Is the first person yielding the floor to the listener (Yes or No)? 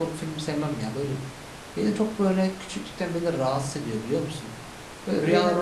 No